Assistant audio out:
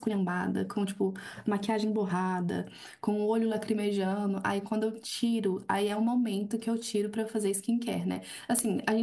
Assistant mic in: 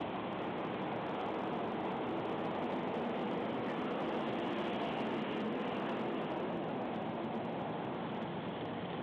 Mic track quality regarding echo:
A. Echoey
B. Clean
B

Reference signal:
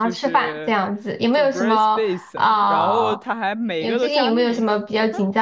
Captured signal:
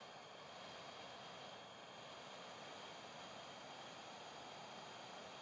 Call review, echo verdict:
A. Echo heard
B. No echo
B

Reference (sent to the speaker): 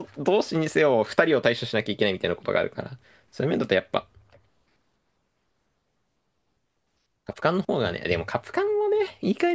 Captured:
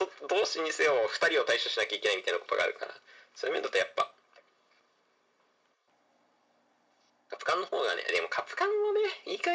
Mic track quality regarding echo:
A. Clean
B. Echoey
B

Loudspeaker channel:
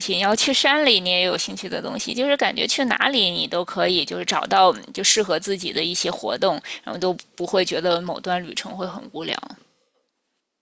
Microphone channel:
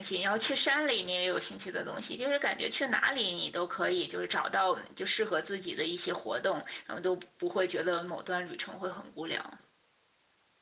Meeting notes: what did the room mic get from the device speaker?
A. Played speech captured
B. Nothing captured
A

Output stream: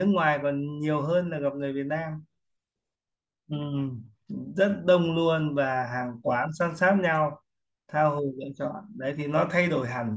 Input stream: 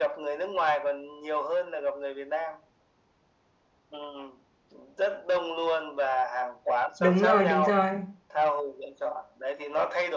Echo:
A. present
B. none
A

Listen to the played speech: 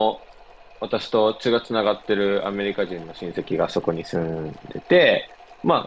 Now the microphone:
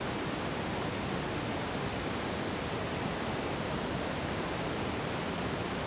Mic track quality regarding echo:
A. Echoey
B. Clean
B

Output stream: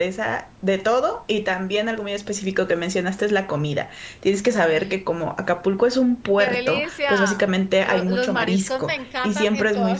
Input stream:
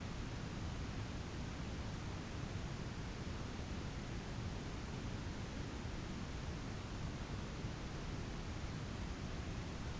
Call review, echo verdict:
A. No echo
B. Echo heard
A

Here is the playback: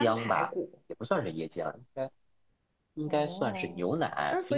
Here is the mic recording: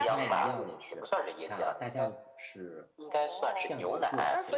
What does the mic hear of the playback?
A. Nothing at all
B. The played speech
B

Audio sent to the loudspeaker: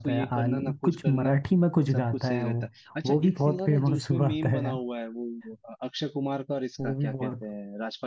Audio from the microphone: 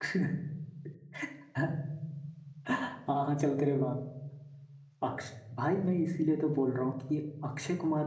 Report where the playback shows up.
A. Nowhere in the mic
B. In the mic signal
A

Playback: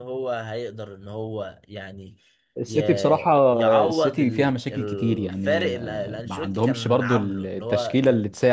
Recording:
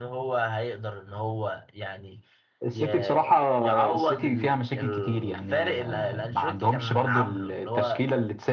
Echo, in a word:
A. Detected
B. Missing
A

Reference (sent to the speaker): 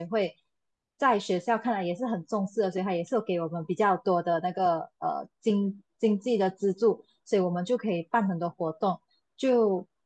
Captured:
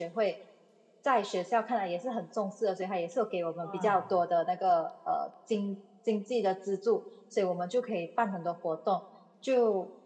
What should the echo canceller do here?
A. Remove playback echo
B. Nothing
A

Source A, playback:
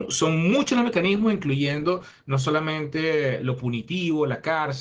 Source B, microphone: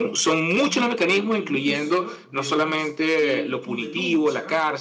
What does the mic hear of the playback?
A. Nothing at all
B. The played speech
B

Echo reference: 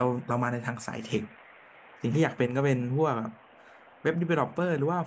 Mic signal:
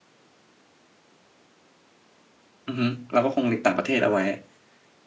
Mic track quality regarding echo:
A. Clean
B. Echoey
A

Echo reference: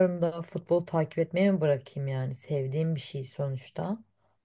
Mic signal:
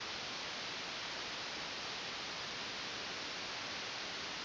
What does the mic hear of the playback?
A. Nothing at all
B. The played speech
A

